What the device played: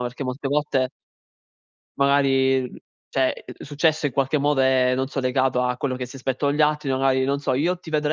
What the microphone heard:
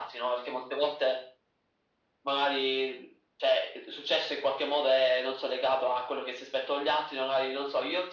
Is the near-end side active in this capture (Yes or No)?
No